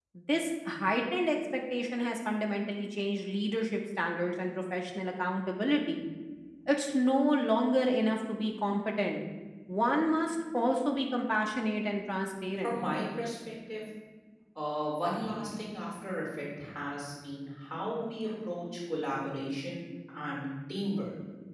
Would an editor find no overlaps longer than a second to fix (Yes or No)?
Yes